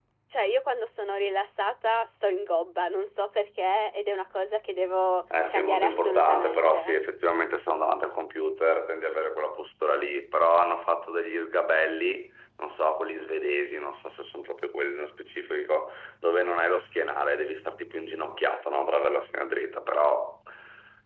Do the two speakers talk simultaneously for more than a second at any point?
Yes, from 5.5 s

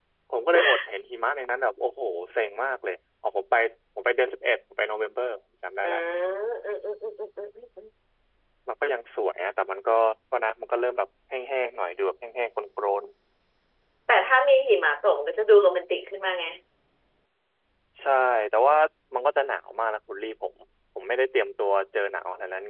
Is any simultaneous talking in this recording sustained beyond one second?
No

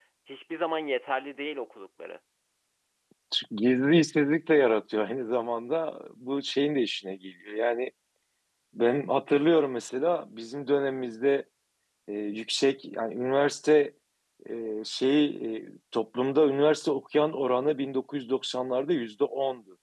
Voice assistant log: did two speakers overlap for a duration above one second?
No

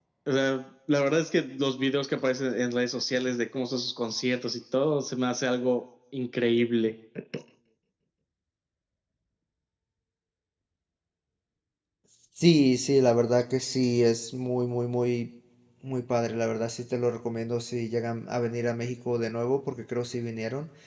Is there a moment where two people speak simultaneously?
No

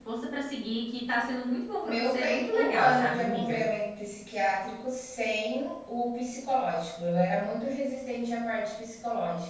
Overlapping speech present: Yes, from 1.8 s

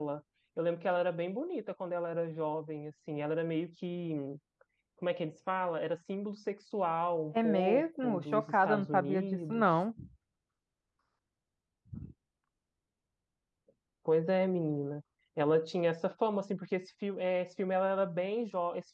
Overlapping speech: Yes, from 7.3 s

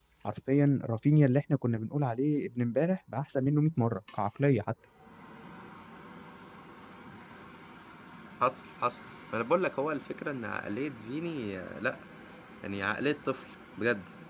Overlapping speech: No

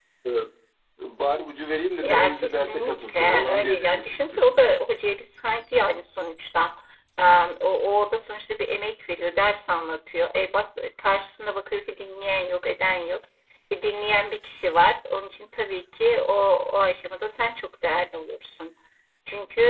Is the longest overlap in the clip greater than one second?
Yes, from 2.0 s

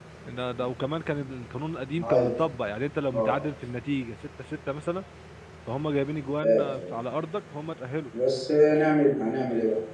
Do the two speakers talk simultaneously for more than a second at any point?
No

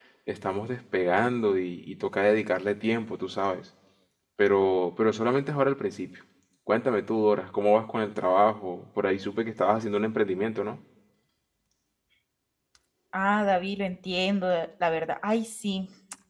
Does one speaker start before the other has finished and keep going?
No

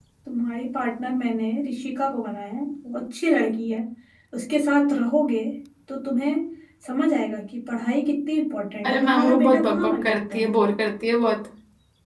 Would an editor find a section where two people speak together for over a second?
Yes, from 8.8 s

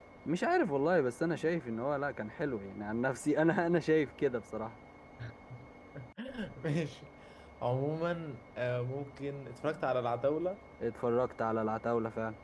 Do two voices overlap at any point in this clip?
No

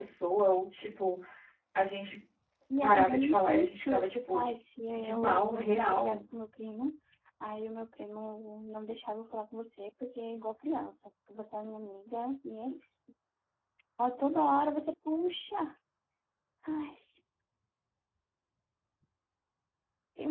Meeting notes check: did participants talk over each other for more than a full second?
Yes, from 2.8 s

